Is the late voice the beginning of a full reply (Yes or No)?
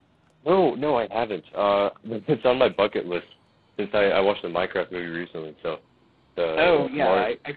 Yes